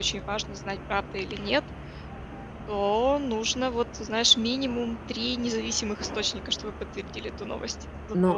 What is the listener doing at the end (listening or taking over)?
taking over